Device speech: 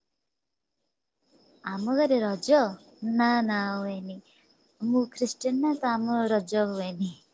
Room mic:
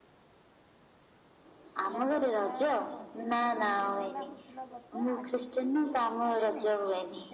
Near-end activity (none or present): present